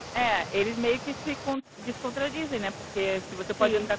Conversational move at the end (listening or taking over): listening